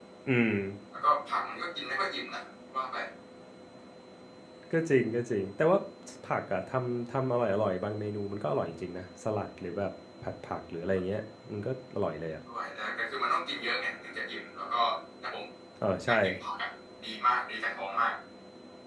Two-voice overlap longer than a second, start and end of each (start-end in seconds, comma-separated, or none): none